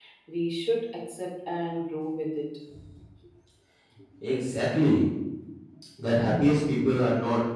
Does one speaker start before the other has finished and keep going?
No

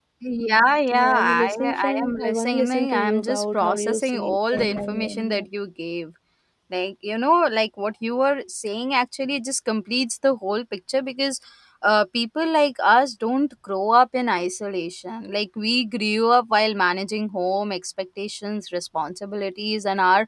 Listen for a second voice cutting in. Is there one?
Yes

